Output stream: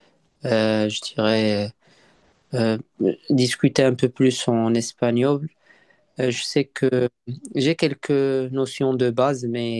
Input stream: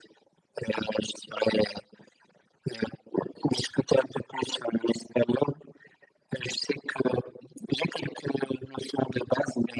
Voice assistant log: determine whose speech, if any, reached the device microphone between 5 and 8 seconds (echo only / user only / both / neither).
echo only